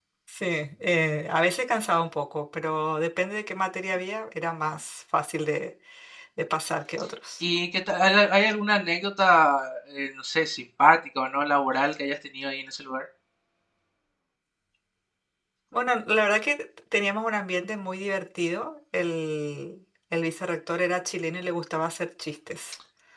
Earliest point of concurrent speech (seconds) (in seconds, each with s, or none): none